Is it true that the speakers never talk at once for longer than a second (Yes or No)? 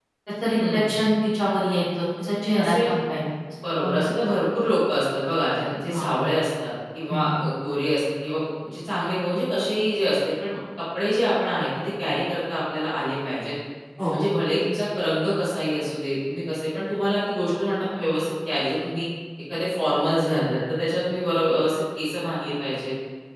Yes